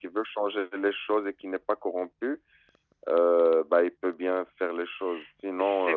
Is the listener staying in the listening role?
Yes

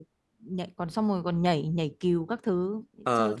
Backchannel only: Yes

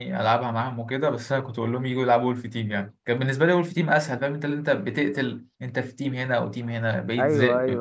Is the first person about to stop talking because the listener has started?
Yes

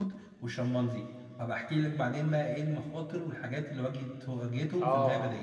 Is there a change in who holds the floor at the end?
Yes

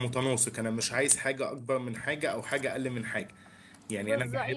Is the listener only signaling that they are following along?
No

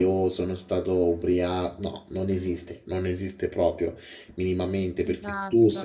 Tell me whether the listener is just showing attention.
Yes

